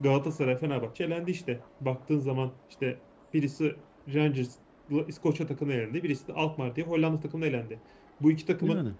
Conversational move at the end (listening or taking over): listening